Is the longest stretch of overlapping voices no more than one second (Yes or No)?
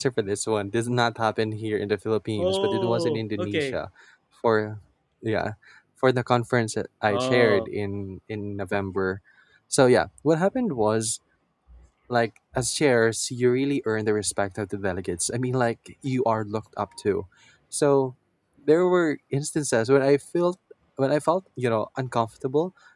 No